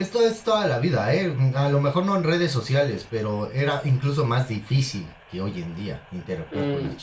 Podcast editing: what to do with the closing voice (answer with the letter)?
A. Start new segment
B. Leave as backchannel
A